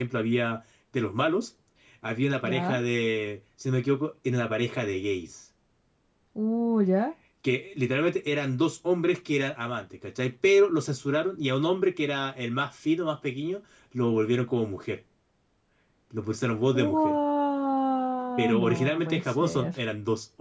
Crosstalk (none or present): present